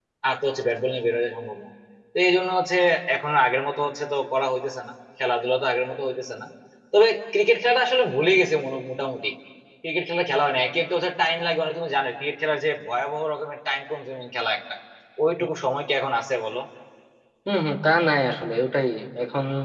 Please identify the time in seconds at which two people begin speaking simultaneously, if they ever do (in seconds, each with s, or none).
none